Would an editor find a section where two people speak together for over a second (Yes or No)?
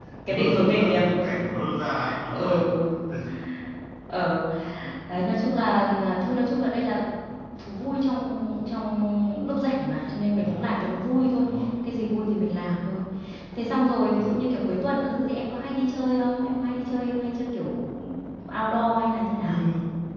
Yes